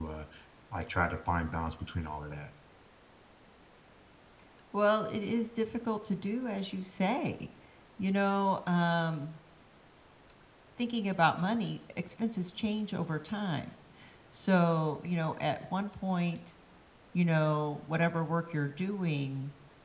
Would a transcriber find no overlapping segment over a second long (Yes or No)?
Yes